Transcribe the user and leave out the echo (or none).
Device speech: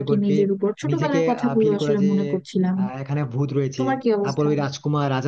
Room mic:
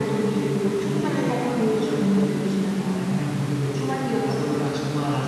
none